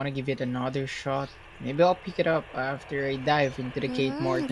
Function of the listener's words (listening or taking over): taking over